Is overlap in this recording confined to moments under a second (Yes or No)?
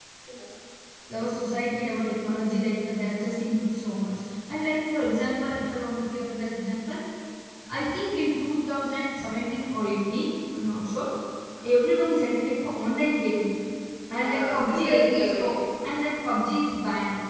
No